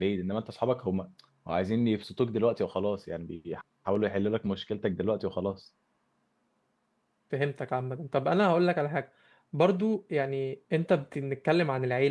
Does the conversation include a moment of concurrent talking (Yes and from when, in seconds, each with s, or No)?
No